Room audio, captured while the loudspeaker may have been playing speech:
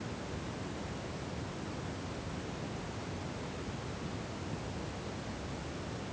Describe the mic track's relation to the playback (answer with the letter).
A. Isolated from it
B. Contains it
A